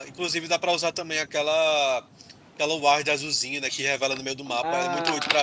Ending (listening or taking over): taking over